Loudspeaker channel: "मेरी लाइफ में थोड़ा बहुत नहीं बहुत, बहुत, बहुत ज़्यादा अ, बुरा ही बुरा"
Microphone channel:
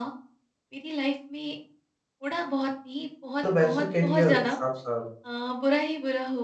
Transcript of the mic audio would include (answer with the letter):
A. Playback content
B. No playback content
A